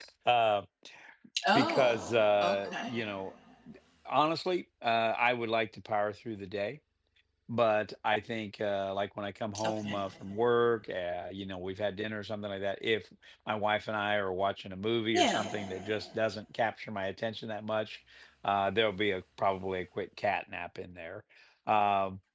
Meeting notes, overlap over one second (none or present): none